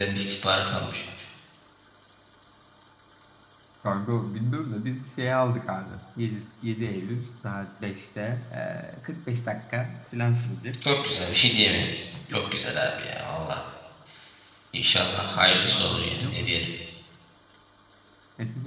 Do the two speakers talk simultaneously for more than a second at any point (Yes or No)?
Yes